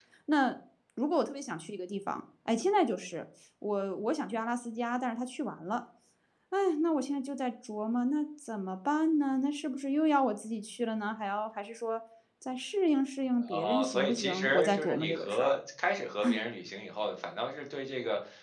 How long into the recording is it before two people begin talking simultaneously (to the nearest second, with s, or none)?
13 s